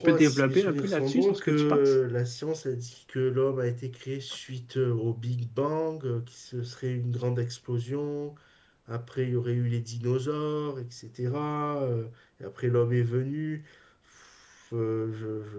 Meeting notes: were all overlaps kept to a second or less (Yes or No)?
No